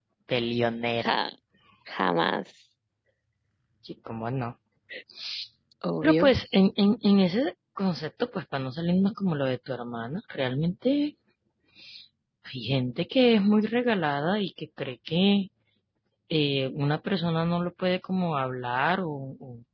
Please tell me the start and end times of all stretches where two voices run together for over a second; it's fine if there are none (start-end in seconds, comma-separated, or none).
none